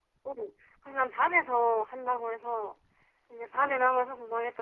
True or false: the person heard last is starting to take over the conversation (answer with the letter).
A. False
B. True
A